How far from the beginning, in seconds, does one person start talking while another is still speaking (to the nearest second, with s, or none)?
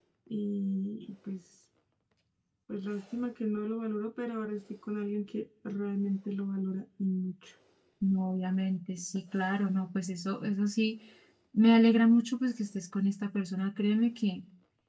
none